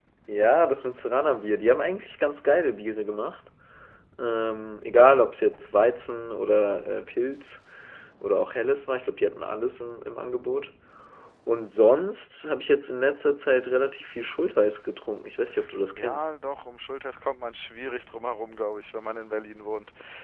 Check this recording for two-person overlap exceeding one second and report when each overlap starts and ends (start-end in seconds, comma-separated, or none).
none